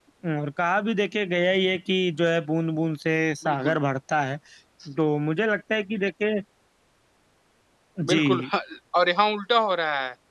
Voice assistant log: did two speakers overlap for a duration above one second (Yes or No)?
No